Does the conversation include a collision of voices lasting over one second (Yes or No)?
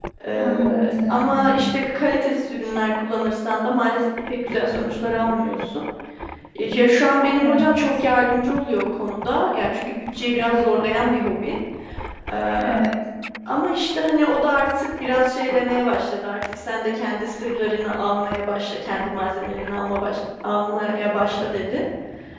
Yes